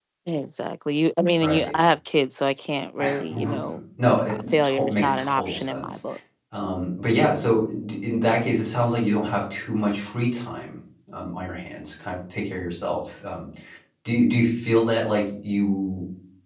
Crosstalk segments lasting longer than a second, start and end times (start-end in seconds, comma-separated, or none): 4.1-6.0